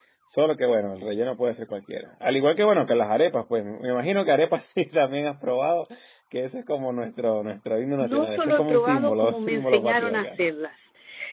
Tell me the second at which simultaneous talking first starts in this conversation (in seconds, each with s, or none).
8.0 s